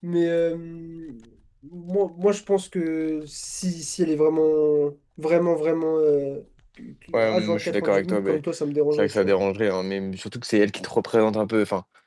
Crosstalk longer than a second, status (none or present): present